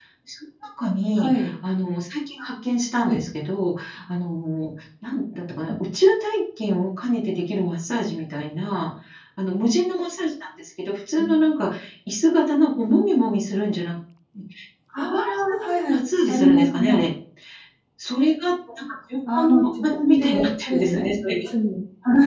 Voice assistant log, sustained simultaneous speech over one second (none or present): present